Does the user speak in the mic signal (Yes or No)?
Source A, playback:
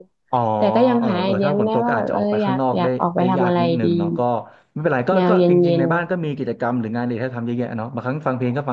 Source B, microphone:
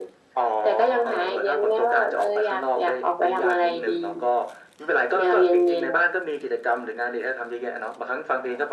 No